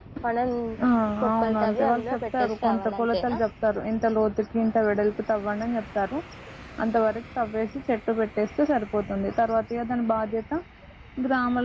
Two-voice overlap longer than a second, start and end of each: 1.4-3.4

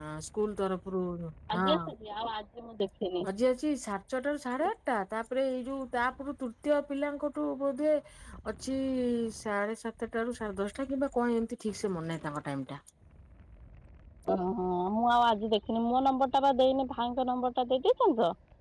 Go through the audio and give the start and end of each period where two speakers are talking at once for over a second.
none

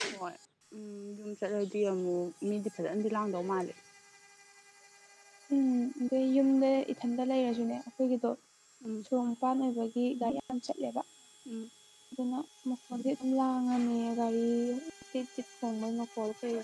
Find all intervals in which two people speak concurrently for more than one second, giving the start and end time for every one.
none

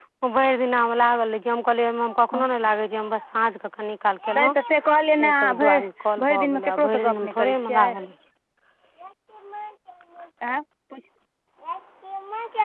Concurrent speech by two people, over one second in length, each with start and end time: 4.4-5.8, 6.2-8.0

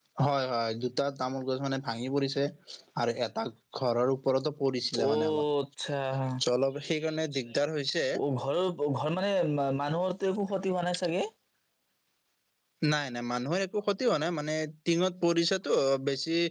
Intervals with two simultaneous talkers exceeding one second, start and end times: none

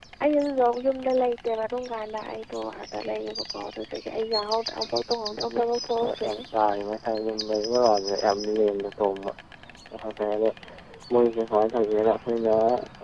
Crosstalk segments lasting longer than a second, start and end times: 5.2-6.4

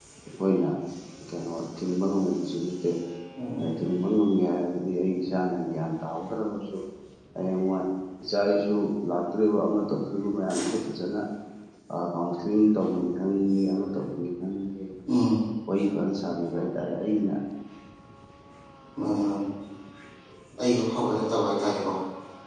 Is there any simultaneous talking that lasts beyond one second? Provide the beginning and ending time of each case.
none

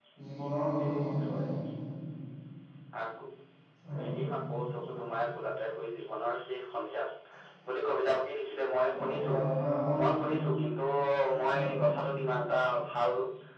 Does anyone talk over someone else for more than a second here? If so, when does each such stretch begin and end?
none

